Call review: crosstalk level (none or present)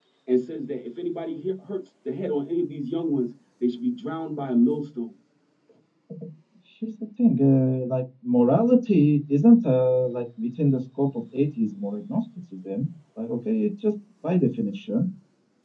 none